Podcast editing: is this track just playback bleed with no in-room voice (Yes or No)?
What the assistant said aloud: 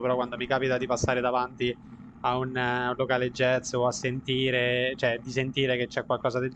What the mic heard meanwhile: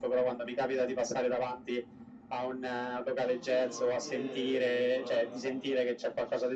No